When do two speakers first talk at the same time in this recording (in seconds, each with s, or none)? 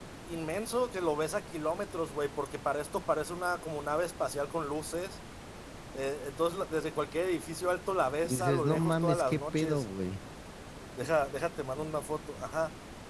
8.2 s